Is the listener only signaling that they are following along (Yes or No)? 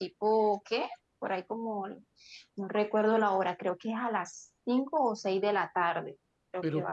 No